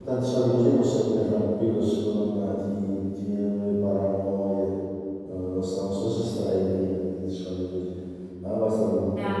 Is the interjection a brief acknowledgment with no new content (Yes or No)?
No